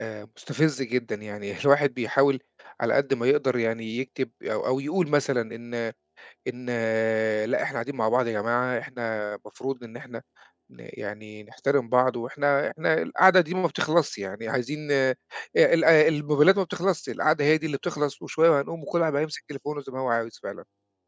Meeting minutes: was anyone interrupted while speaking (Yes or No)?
No